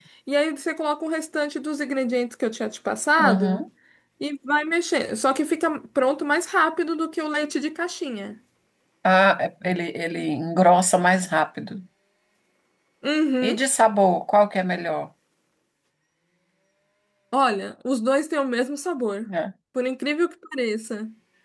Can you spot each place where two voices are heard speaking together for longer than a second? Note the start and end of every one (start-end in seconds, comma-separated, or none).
none